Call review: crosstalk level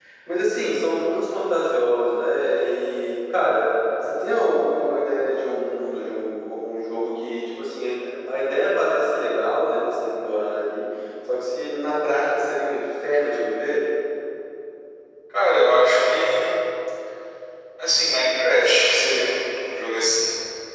none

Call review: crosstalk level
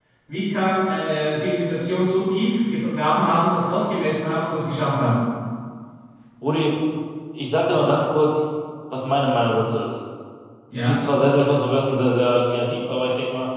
none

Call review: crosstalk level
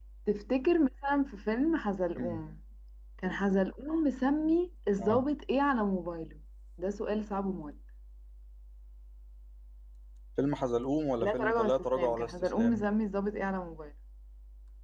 present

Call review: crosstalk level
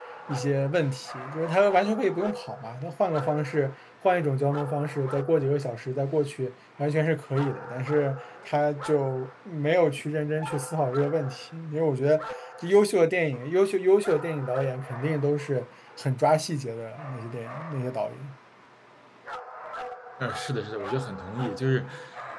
none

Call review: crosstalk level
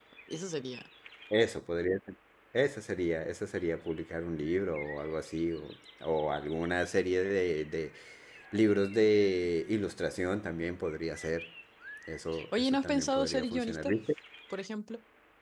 present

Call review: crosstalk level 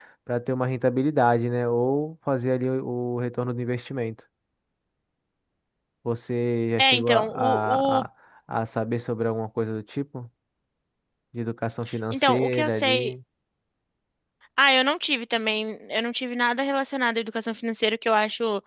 present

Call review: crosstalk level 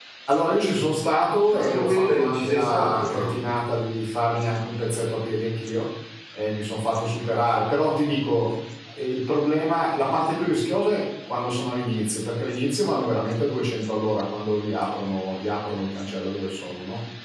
present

